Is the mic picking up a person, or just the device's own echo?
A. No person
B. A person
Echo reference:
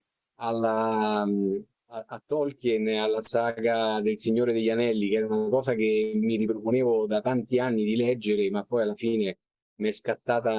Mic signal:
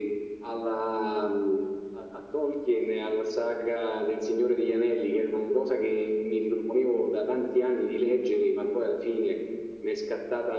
A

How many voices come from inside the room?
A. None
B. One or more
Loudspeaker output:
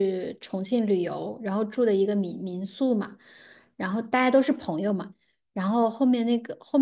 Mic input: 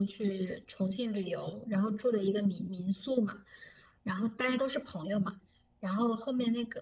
A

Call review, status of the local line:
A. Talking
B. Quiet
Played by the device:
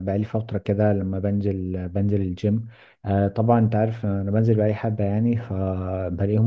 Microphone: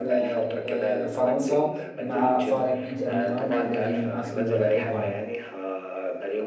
A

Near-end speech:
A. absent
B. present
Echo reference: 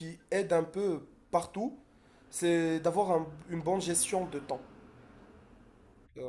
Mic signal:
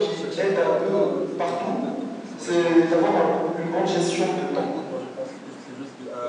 B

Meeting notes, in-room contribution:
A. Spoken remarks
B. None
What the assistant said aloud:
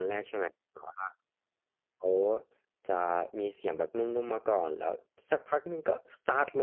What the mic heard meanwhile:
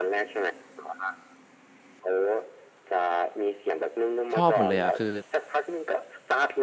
A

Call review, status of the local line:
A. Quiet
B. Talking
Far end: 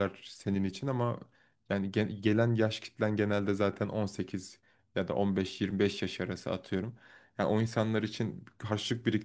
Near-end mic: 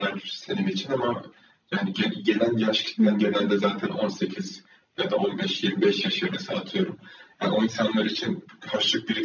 B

